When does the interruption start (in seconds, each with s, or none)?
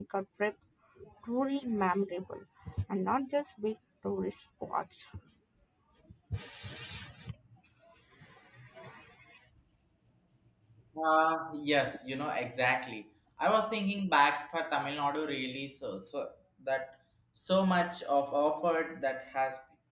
none